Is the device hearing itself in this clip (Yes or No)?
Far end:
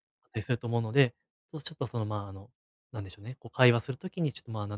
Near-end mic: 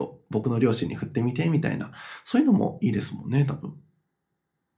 No